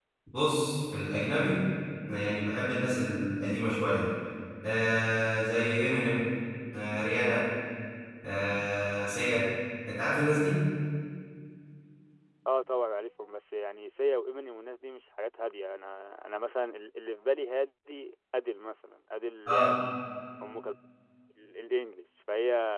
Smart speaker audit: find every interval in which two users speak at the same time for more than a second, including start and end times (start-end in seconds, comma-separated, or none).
none